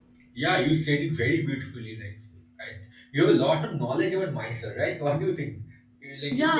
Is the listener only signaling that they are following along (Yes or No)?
No